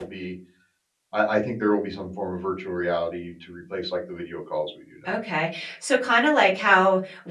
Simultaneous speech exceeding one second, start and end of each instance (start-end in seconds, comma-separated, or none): none